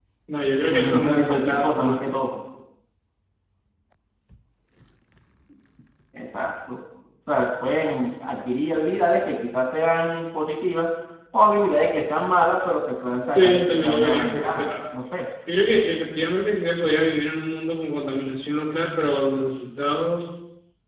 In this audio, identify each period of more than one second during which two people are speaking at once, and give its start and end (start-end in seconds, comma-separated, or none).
0.7-2.0, 13.3-14.7